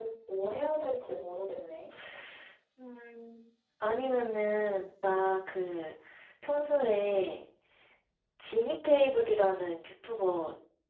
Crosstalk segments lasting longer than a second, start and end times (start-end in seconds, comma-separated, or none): none